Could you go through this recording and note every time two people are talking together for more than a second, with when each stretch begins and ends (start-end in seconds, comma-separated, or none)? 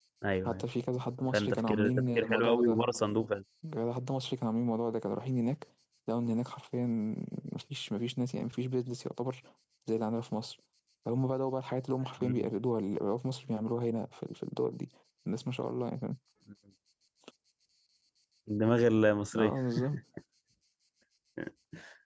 1.3-2.8